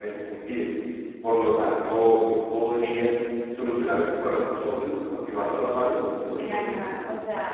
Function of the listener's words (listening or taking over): taking over